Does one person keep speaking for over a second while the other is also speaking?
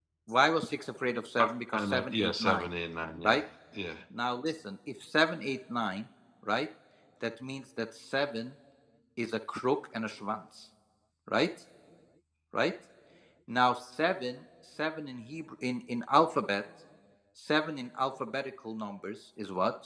Yes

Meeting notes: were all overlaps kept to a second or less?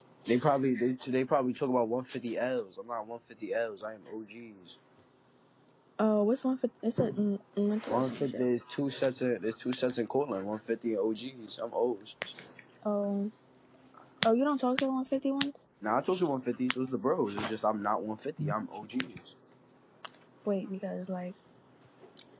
Yes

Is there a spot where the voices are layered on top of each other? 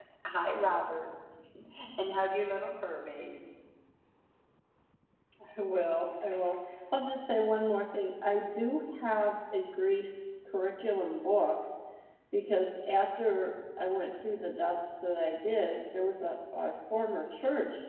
No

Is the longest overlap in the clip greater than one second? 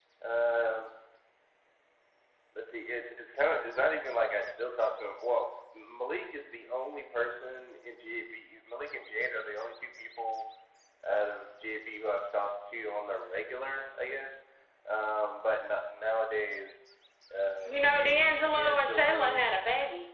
Yes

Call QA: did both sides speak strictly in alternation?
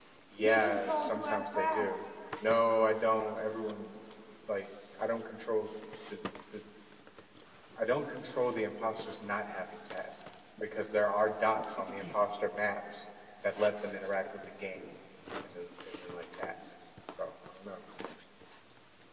No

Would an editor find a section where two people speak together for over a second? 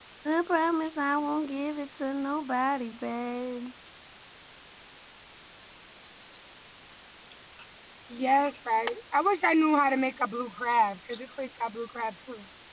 No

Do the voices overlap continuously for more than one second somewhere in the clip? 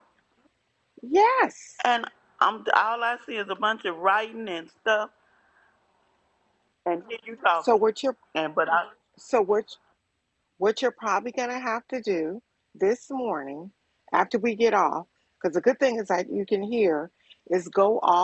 No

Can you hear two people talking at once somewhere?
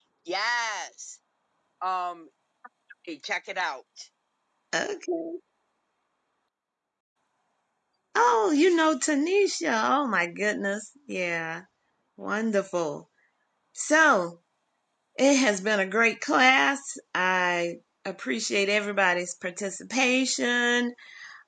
No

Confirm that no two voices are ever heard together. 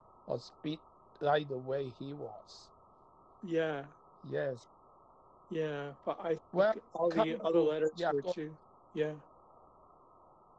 No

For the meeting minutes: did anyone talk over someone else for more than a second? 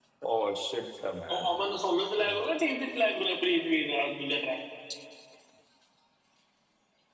No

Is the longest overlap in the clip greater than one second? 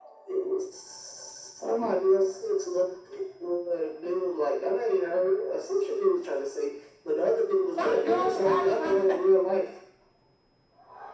Yes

